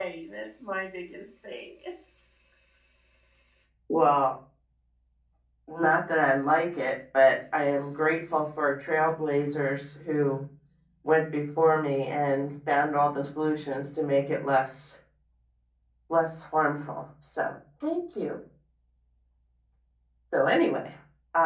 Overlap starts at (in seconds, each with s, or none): none